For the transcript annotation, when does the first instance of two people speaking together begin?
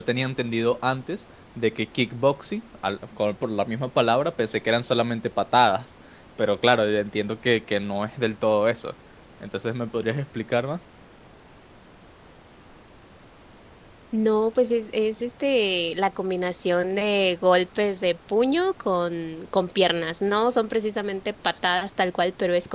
none

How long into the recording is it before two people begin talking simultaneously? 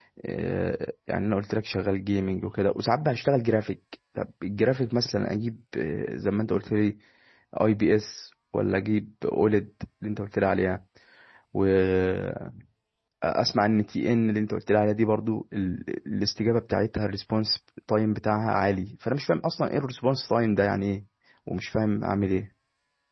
none

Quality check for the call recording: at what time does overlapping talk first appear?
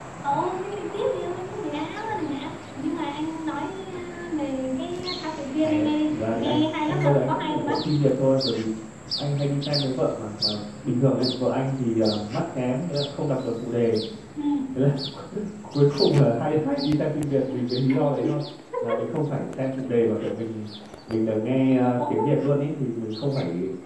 5.6 s

